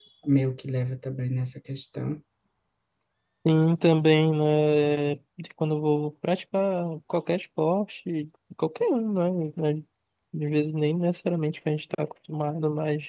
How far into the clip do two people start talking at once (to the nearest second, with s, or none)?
none